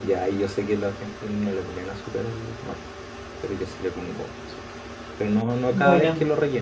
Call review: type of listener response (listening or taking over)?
listening